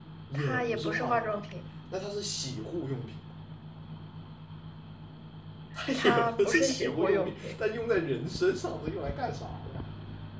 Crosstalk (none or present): present